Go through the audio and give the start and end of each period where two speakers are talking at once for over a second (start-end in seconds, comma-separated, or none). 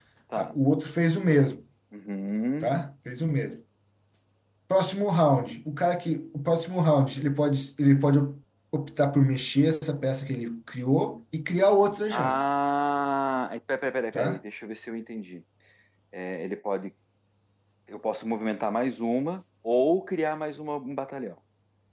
none